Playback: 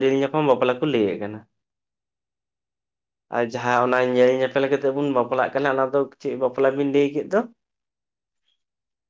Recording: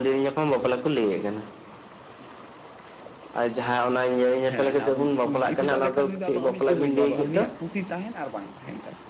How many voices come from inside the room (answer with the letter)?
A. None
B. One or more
B